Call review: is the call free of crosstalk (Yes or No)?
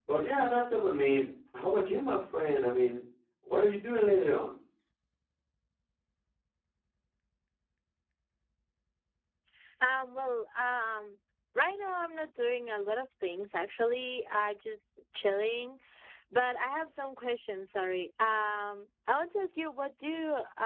Yes